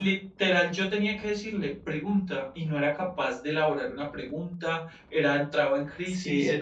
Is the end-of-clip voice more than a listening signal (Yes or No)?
Yes